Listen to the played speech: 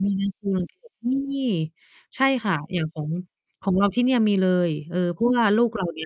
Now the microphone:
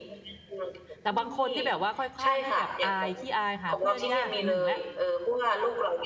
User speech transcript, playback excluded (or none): แต่บางคนที่แบบว่าค่อยข้างที่แบบอาย ขี้อาย หาเพื่อนยาก 1 แล้ว